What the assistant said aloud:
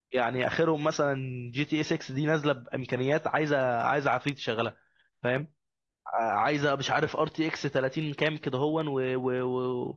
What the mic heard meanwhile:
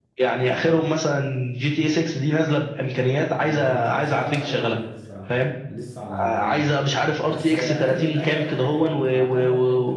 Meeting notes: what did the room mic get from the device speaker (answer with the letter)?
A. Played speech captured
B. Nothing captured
A